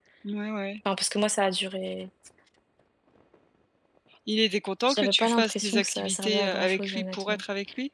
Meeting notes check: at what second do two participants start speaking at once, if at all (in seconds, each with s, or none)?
4.9 s